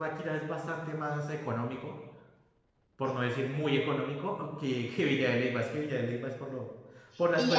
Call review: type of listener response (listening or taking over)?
taking over